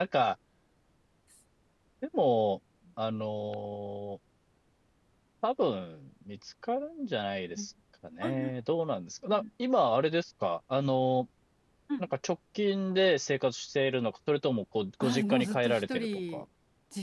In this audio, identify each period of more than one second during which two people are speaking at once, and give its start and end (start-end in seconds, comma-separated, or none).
15.0-16.4